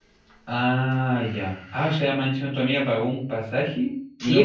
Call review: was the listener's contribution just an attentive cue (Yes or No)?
No